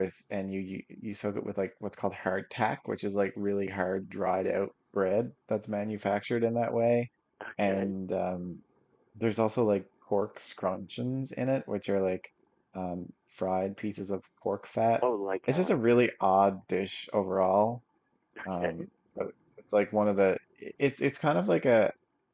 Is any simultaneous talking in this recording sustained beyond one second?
No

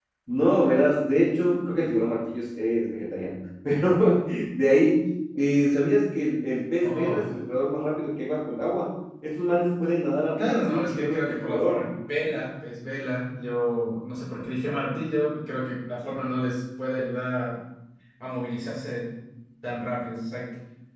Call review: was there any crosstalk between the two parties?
Yes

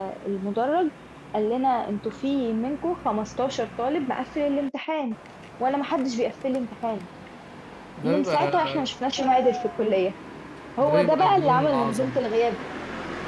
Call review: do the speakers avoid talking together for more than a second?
No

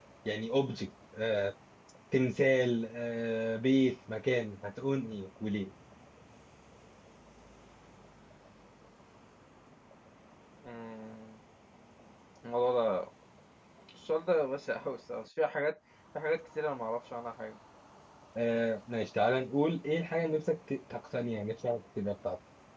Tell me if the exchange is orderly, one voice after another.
Yes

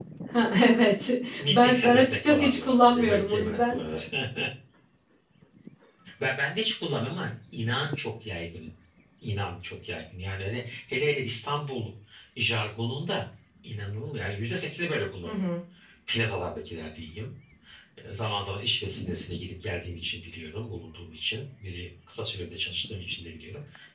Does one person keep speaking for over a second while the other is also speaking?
Yes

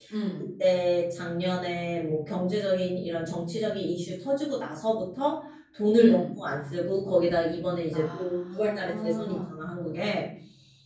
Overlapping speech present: Yes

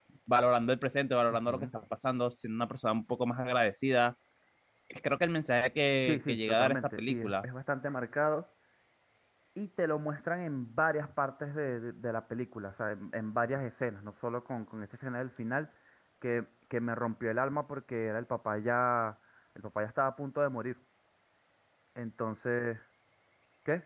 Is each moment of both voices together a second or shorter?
No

